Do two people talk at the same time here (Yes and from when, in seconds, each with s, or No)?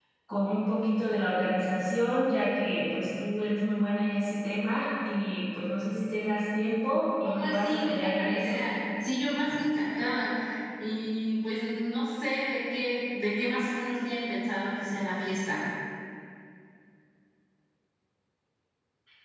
Yes, from 7.2 s